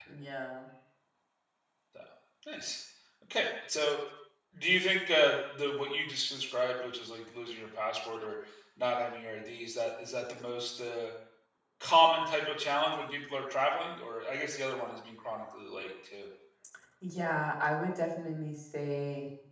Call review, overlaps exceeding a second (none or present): none